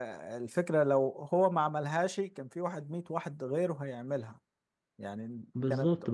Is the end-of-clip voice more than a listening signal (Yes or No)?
Yes